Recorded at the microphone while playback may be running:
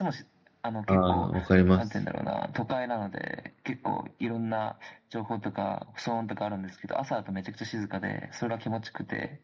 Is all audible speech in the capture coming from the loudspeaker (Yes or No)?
No